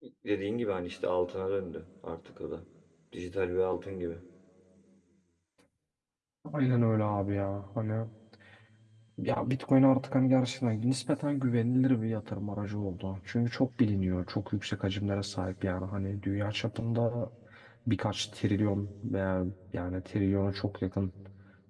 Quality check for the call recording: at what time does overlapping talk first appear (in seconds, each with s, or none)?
none